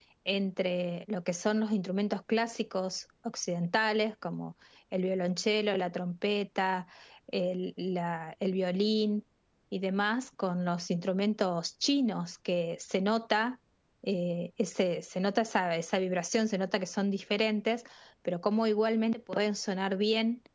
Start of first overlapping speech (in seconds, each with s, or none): none